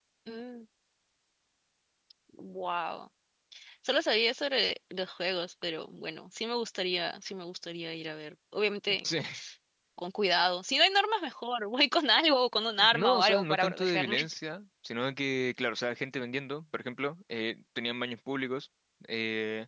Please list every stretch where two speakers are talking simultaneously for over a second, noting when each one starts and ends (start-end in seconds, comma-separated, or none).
12.9-14.3